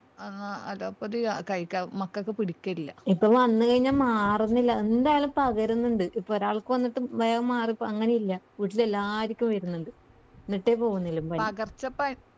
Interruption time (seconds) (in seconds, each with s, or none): none